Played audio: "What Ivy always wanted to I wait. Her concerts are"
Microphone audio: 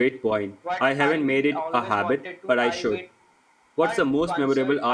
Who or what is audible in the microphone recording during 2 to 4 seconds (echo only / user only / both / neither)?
both